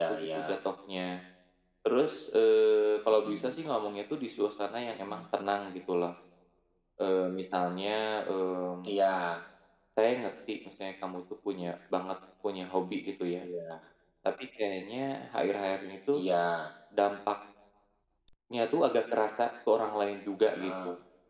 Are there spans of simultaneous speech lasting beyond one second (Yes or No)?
No